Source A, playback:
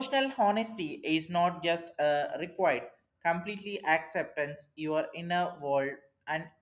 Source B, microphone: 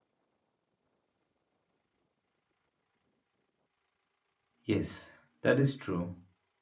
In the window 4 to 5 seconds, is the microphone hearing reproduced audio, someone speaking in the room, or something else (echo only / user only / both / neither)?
user only